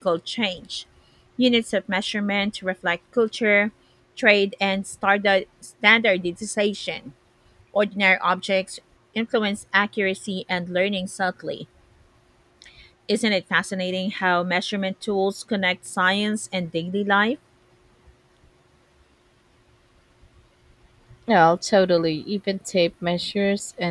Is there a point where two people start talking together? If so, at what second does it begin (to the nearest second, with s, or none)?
none